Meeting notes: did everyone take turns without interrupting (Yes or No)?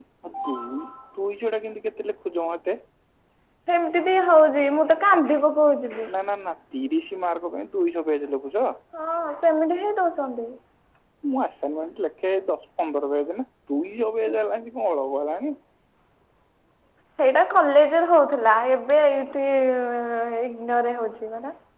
Yes